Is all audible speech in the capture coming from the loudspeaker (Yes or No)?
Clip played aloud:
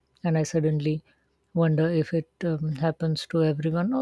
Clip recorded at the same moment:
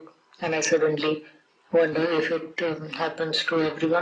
Yes